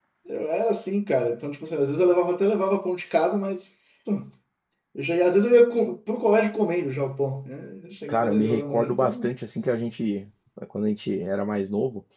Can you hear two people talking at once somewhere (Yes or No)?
Yes